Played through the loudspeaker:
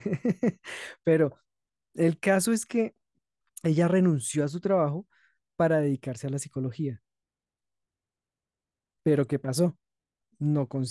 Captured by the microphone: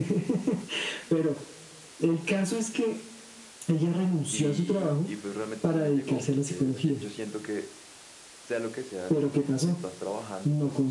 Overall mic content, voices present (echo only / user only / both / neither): both